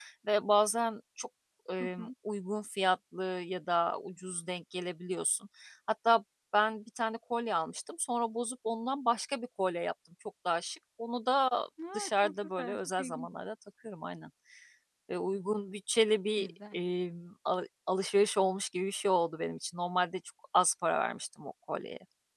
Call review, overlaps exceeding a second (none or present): present